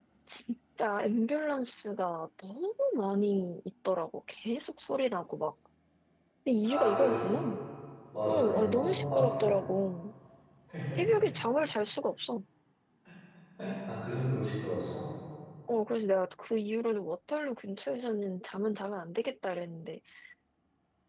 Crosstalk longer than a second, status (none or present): present